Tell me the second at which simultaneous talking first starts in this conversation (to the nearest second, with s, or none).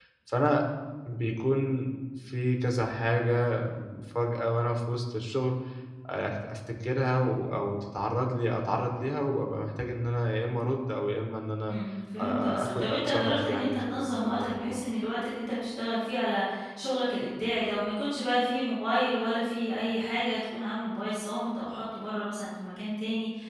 12 s